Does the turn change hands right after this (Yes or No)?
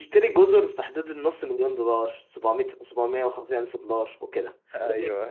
No